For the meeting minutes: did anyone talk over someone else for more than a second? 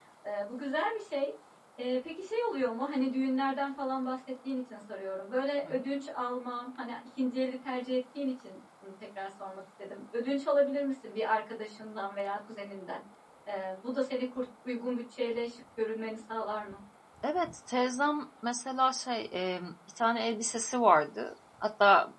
No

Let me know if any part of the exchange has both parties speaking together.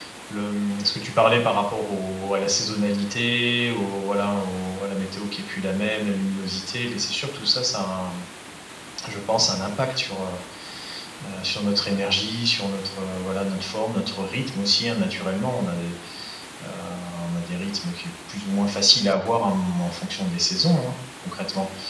No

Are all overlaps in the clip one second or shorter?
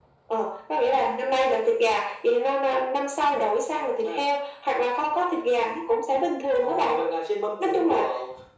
Yes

